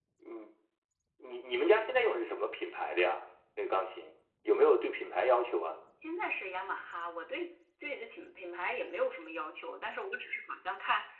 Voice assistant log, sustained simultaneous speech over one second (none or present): none